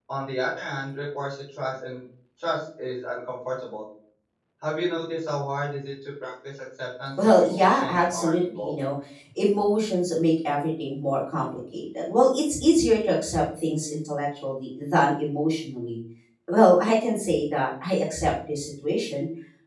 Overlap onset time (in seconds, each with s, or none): 7.2 s